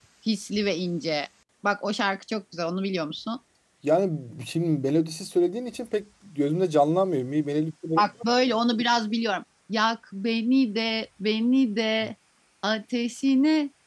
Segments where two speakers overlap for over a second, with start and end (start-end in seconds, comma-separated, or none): none